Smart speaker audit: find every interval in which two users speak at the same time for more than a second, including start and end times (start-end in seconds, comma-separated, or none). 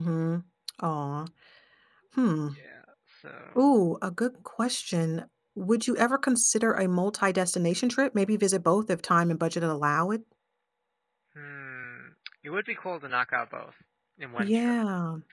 none